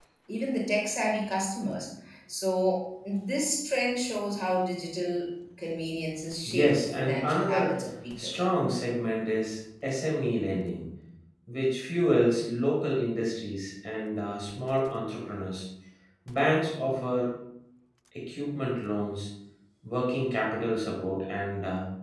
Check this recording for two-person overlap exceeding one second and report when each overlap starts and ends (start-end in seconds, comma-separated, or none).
6.5-7.7